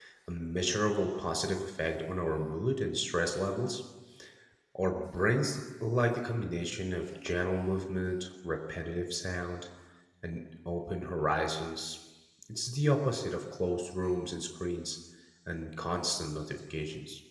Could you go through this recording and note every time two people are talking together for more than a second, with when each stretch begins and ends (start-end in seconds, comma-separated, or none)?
none